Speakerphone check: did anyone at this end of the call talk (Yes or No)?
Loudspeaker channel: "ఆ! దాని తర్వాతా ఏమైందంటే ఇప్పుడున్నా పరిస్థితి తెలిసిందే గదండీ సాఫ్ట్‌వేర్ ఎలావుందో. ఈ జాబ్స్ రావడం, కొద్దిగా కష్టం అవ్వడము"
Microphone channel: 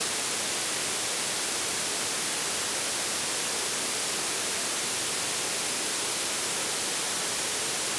No